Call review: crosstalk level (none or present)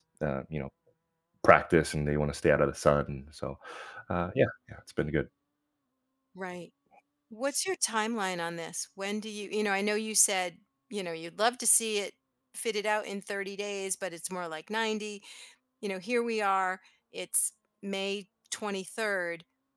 none